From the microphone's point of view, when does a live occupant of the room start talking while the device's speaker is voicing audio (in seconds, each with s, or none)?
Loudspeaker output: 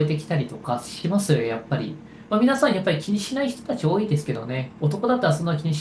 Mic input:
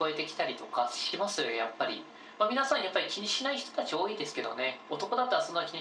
none